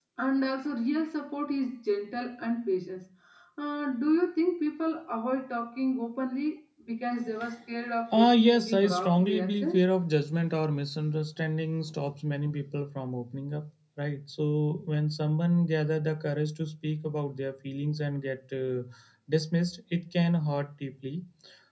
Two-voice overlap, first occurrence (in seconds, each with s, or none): 8.1 s